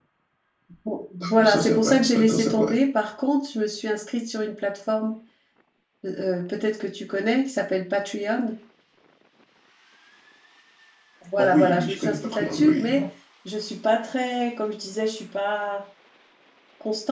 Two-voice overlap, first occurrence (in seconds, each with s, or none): 1.2 s